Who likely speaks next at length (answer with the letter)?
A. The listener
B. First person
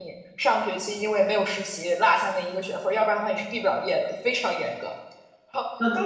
A